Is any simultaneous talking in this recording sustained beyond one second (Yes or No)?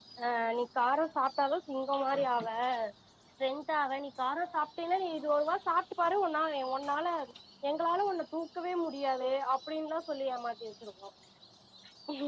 No